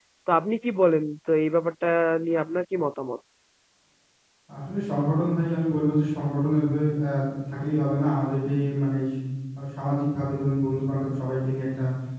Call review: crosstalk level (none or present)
none